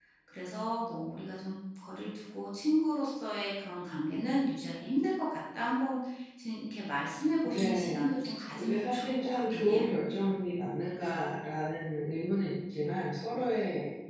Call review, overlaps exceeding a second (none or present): present